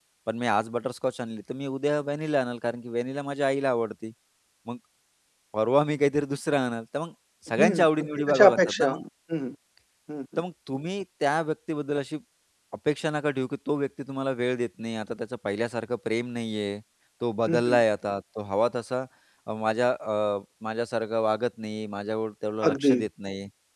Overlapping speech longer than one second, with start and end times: 7.6-9.0

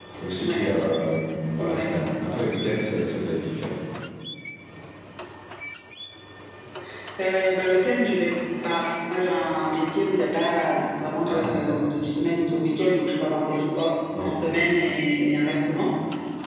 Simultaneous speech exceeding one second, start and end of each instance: none

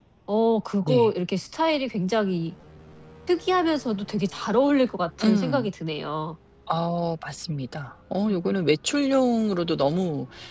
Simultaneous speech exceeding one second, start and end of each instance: none

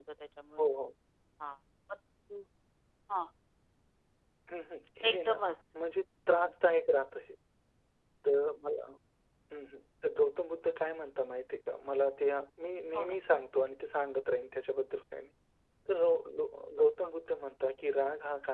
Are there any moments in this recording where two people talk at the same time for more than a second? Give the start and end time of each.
none

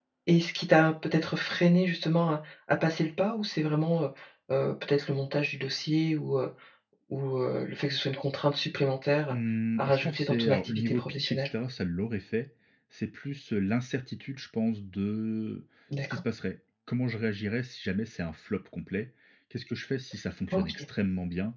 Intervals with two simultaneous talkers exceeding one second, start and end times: 9.8-11.4

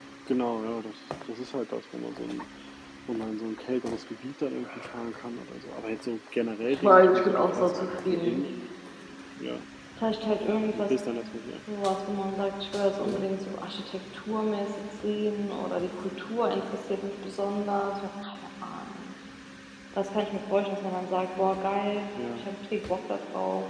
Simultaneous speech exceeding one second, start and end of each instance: 6.6-8.4

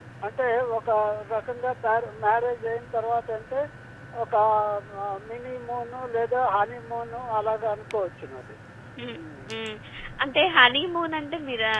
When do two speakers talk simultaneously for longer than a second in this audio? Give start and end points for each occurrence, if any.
none

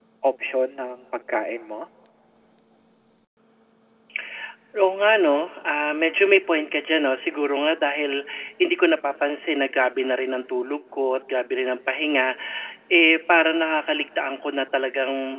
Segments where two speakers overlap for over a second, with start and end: none

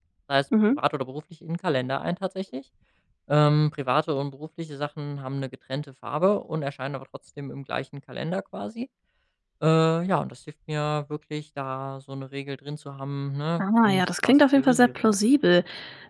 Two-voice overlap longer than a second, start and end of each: 13.6-15.1

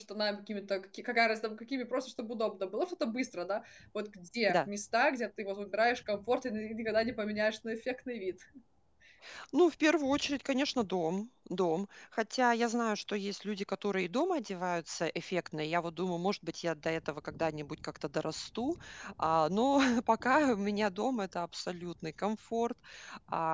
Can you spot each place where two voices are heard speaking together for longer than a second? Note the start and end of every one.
none

